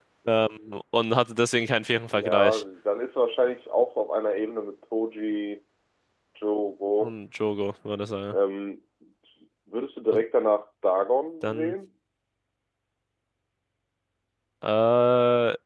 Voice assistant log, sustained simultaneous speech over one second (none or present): none